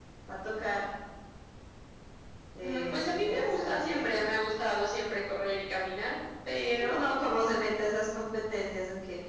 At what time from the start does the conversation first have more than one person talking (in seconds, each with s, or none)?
2.6 s